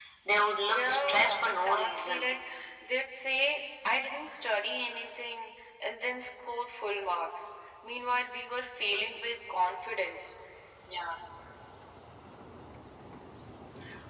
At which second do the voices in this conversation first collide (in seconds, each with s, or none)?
0.7 s